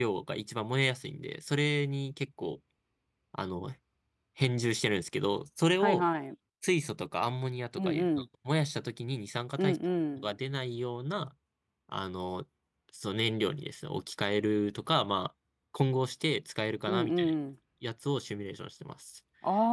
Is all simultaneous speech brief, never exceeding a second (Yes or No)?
Yes